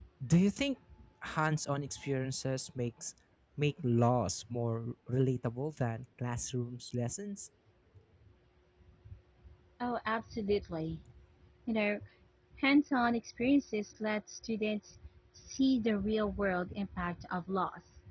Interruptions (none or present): none